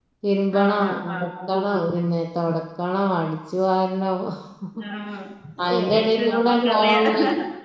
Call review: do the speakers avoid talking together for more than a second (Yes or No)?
No